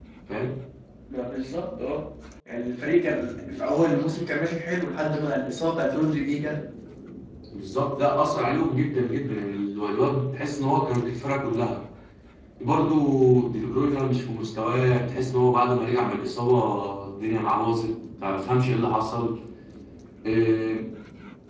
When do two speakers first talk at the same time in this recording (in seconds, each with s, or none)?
none